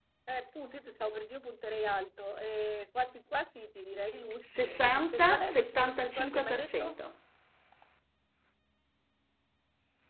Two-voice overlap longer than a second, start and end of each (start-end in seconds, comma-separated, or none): 4.4-7.0